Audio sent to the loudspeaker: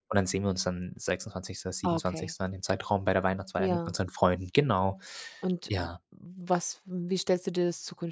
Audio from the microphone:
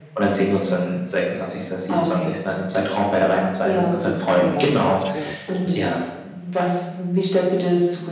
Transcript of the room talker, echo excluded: das tut mir leid, das ist schwierig. Mhm.

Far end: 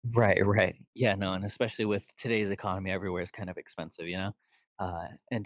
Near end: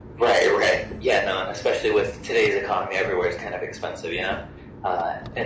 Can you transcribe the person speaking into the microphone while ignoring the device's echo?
none

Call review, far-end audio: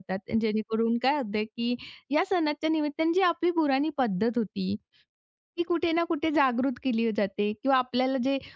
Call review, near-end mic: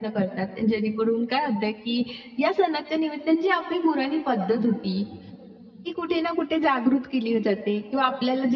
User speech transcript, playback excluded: none

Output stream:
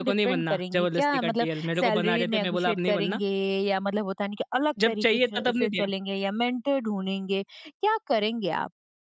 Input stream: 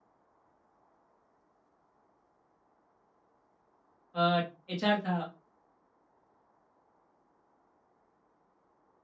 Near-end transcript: अ, एचआर था

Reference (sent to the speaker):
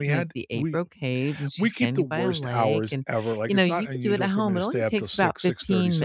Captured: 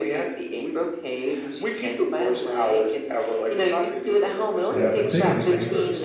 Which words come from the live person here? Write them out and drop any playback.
And I've been thinking like,

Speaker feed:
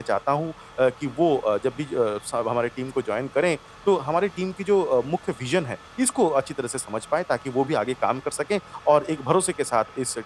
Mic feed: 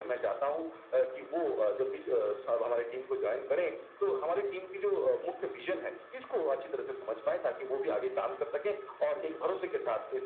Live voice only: none

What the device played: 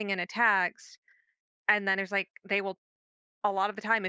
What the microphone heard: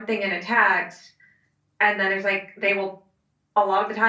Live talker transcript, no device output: none

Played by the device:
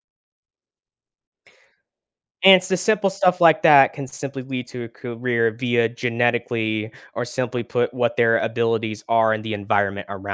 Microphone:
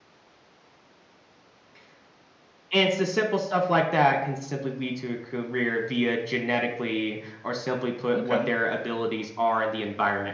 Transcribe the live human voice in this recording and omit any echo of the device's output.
Okay,

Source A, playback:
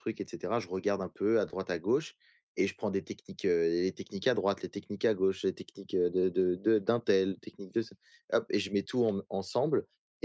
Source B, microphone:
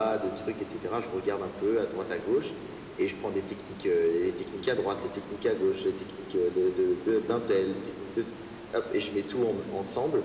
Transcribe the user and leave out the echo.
none

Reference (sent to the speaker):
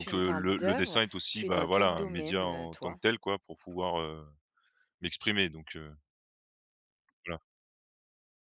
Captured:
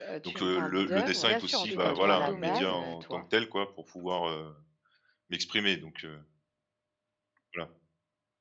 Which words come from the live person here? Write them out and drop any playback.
Bien sûr, en tout cas, tu auras la base.

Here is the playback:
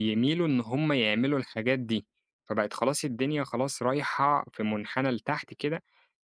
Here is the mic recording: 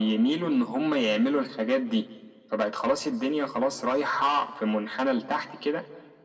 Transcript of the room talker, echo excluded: none

